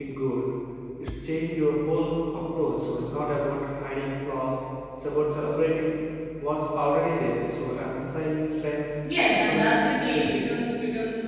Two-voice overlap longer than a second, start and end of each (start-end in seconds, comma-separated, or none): 9.3-10.5